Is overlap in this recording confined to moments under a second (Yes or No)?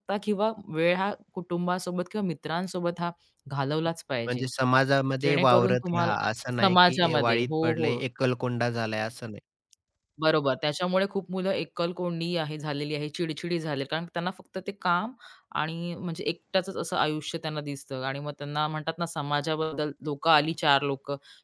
No